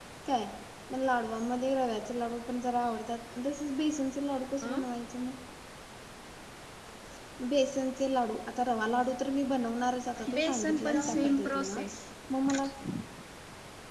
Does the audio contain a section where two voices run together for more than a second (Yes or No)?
Yes